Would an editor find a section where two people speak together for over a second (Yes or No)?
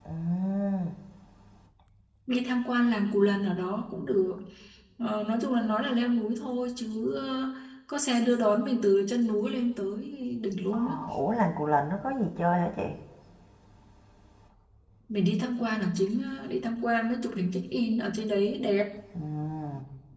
No